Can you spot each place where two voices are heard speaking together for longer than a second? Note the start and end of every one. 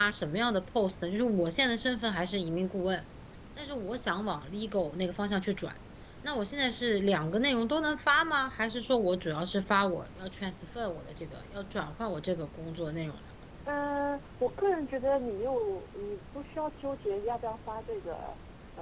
none

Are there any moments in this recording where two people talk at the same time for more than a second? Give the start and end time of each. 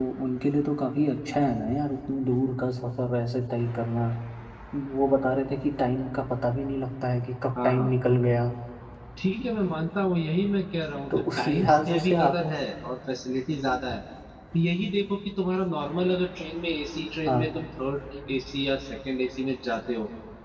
11.2-12.4

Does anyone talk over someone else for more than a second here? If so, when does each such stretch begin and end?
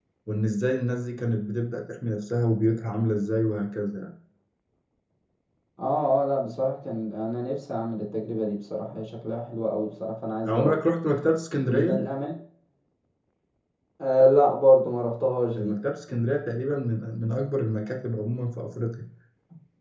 none

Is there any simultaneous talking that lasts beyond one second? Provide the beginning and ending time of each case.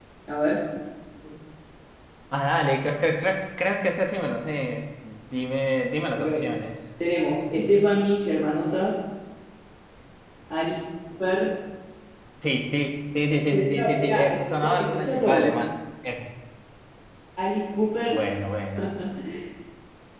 13.5-15.6

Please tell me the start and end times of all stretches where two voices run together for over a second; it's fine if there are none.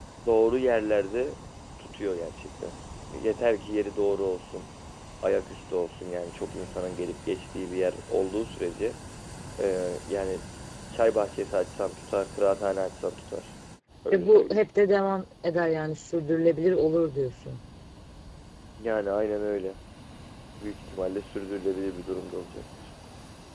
none

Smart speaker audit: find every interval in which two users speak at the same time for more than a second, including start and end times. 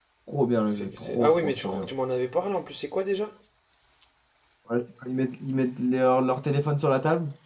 0.7-1.9

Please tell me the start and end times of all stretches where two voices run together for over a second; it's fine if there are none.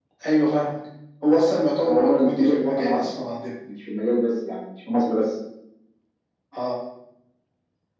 1.8-3.1

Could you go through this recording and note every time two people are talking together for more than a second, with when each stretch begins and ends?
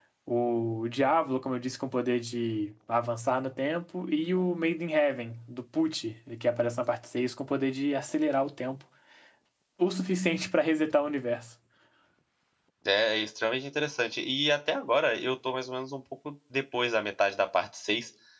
none

